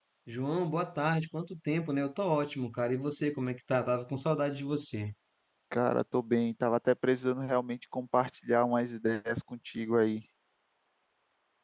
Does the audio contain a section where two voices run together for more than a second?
No

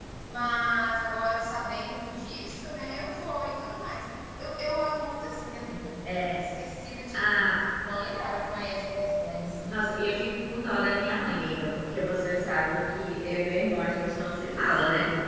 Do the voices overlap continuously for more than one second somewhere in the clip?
No

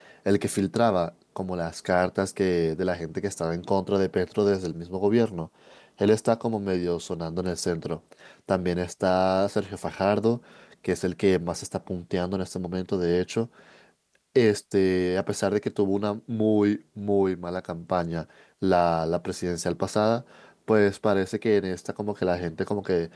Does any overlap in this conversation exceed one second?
No

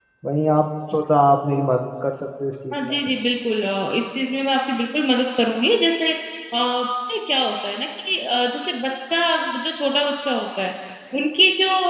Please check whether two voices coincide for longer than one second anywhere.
No

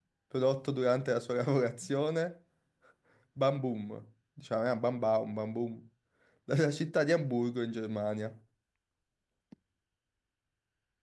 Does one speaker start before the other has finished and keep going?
No

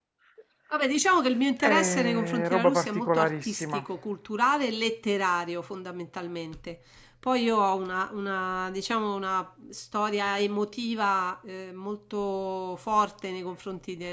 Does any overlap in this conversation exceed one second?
Yes, from 1.6 s

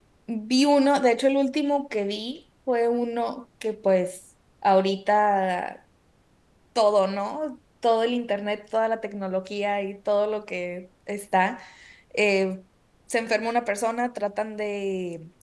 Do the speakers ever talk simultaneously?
No

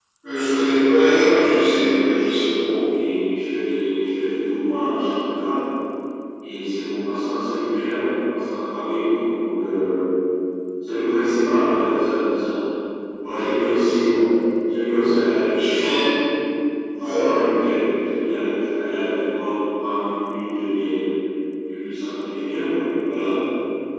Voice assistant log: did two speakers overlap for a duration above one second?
Yes, from 1.2 s

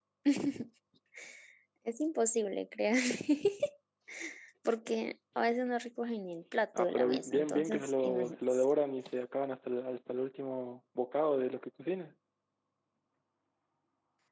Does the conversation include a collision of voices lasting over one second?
Yes, from 6.7 s

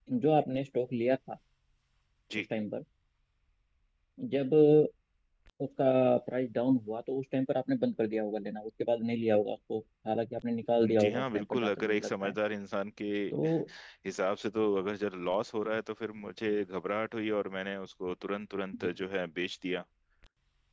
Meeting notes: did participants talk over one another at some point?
Yes, from 11.0 s

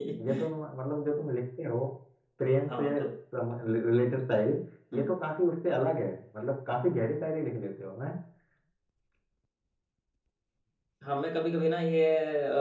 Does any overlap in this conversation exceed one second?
No

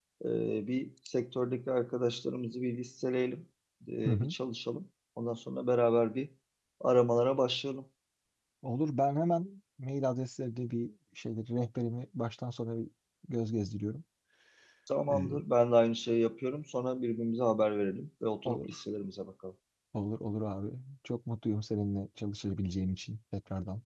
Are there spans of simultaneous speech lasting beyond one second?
No

